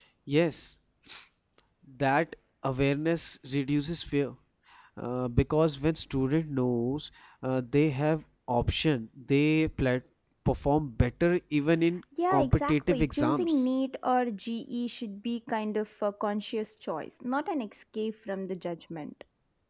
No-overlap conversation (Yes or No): No